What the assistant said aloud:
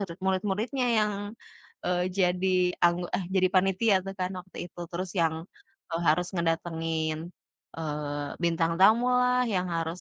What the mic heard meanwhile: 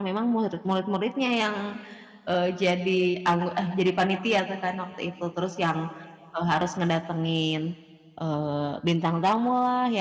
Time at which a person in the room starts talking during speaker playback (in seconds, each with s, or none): none